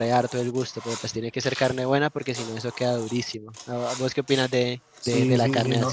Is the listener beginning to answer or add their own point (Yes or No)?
Yes